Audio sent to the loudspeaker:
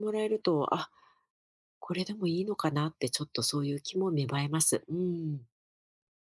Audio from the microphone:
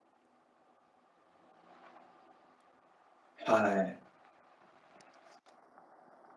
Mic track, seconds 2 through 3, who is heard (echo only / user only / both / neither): neither